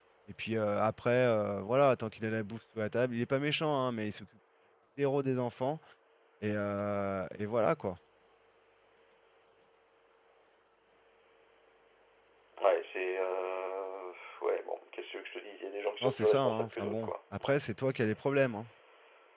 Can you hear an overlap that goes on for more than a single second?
Yes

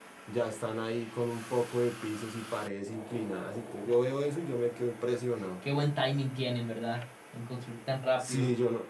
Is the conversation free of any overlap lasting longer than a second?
Yes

